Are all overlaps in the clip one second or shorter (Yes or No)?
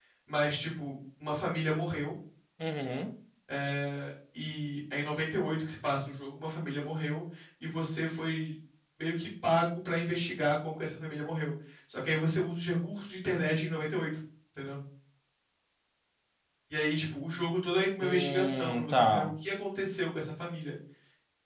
No